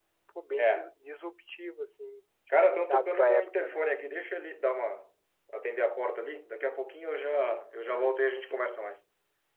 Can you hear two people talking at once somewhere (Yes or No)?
Yes